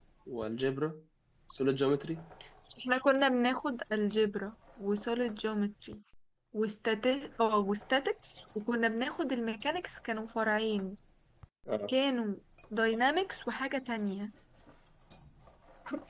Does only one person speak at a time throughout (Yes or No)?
Yes